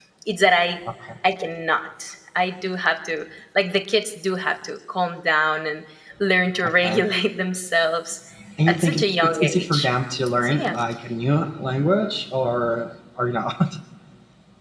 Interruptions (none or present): present